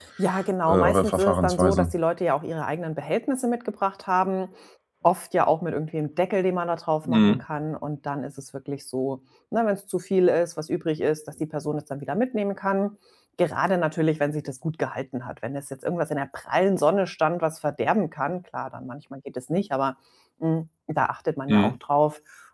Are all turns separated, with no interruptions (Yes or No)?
No